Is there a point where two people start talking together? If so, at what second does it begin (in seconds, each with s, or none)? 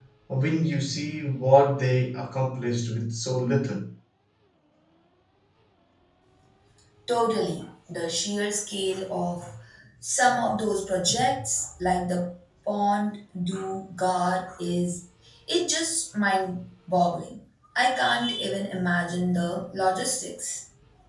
none